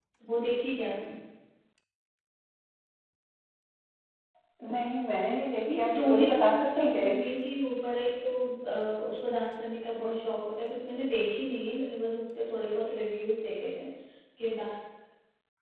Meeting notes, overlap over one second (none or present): present